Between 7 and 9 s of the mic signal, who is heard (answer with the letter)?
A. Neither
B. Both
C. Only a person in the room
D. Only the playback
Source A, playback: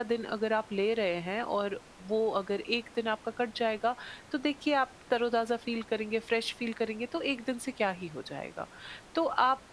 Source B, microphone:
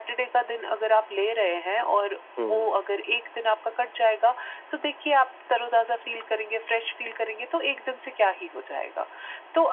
D